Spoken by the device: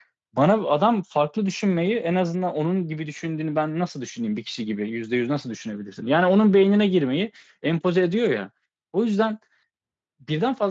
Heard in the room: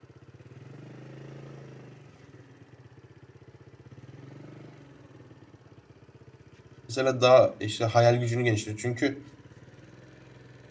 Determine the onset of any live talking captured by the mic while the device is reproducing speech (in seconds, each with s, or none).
6.9 s